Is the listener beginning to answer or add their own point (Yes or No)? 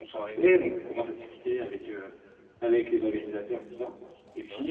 No